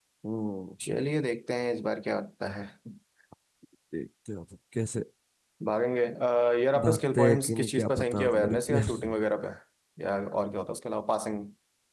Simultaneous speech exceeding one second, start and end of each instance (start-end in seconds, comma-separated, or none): 6.8-9.1